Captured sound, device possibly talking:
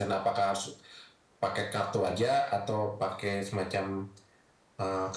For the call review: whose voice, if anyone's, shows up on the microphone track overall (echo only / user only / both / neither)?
echo only